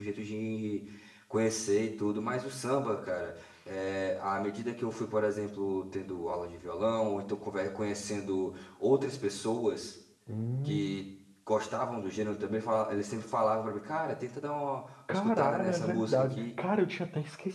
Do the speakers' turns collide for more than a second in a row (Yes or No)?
Yes